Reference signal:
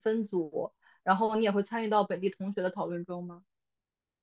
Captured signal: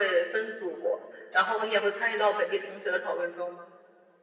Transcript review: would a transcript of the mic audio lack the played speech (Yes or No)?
No